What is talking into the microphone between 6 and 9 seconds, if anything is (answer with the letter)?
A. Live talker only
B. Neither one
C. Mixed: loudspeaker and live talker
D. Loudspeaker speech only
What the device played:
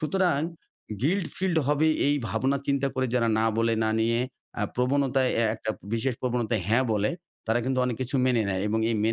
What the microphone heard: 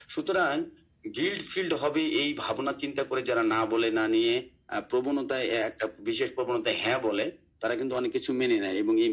D